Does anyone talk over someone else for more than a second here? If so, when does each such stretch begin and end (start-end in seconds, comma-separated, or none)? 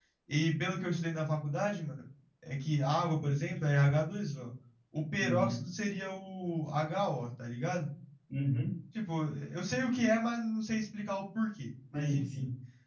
none